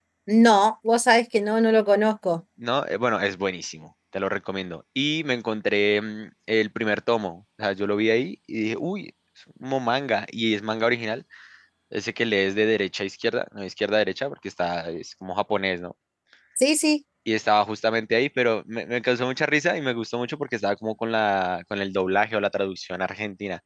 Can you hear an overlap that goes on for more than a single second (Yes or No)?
No